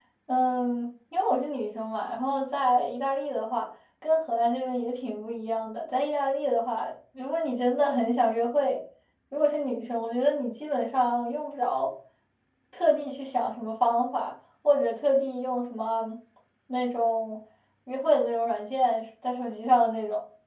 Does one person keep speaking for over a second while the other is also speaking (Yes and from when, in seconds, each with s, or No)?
No